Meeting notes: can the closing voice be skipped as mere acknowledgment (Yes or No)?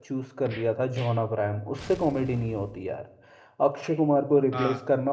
Yes